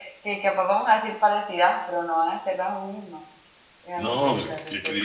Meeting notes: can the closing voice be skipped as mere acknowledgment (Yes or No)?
No